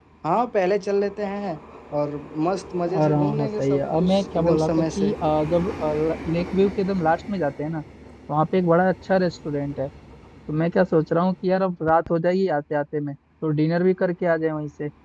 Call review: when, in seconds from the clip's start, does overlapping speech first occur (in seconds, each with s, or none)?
2.9 s